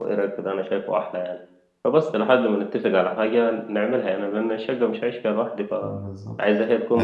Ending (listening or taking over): taking over